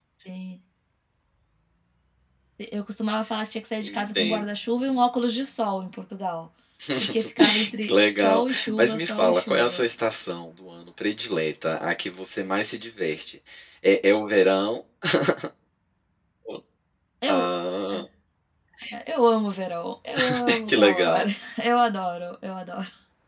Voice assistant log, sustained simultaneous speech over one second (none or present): present